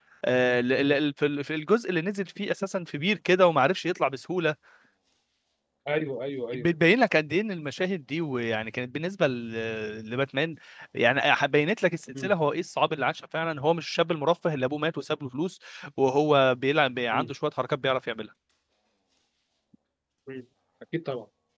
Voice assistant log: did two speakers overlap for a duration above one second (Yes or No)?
No